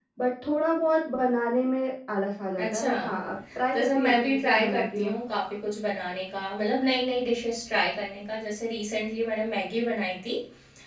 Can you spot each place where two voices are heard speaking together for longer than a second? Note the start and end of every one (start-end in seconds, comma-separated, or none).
3.7-5.2